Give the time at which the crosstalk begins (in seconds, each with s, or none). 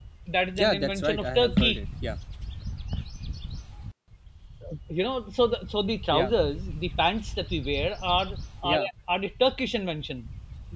0.6 s